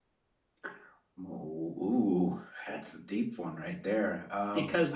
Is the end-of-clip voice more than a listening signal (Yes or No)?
Yes